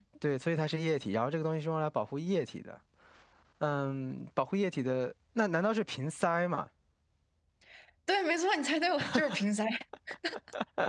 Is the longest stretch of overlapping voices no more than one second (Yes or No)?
Yes